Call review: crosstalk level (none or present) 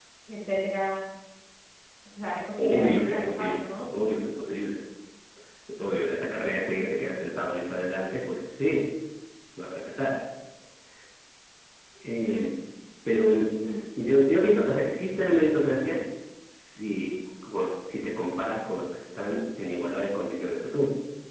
present